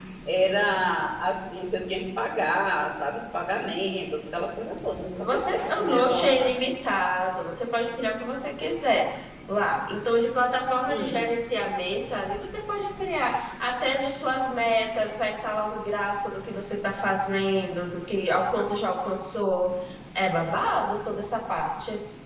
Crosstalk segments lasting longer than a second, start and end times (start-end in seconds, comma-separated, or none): 5.2-6.5